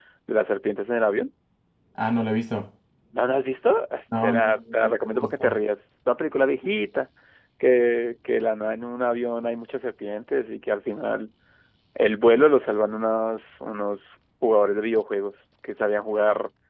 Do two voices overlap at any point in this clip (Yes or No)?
Yes